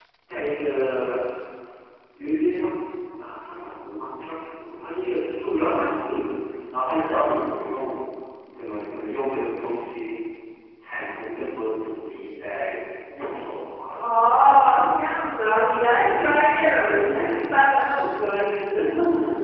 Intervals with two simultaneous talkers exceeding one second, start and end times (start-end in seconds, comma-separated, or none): none